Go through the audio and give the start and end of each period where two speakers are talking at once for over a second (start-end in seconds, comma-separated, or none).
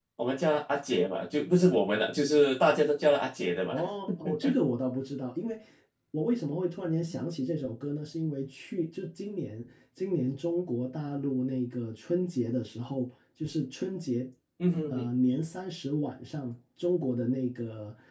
none